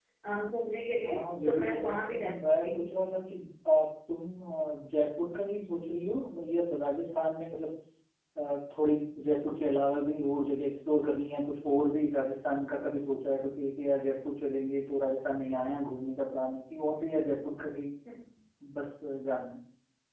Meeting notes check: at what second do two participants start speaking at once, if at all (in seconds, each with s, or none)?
1.0 s